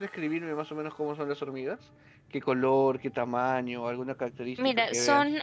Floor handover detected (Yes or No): Yes